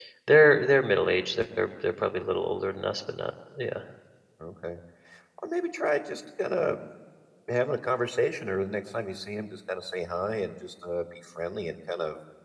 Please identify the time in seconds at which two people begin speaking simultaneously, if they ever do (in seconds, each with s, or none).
none